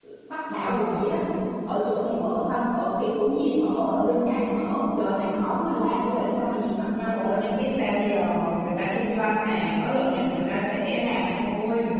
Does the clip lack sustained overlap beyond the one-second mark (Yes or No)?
Yes